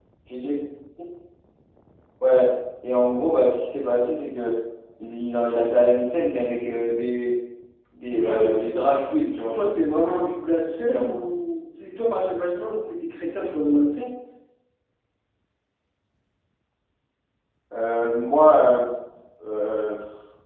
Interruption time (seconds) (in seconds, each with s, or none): 8.1 s